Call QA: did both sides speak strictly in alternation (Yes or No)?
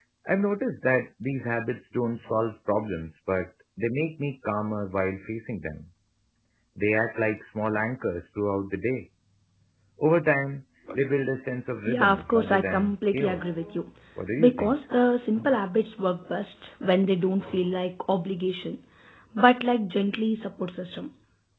No